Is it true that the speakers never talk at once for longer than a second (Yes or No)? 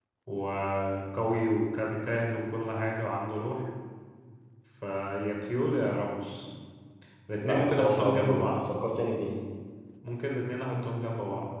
No